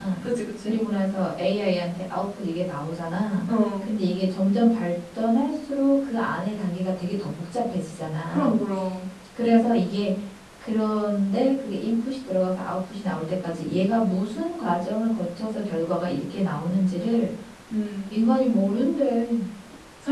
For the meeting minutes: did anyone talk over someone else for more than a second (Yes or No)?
No